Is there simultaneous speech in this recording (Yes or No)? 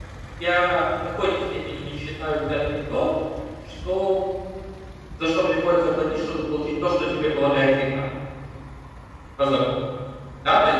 No